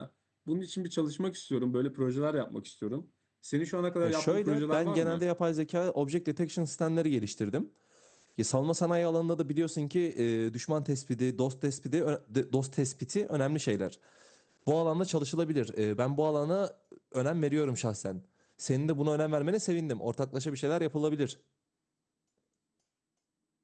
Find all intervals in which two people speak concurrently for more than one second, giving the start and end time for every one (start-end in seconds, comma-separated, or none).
4.0-5.2